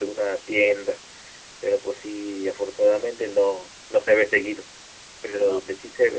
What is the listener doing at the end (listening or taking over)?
listening